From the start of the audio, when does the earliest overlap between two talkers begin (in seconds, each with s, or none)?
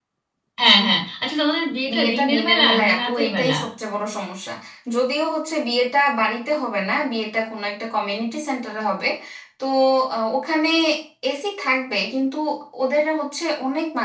1.9 s